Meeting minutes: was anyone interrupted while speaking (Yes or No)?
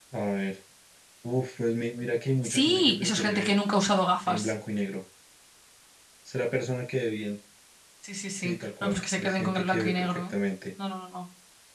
Yes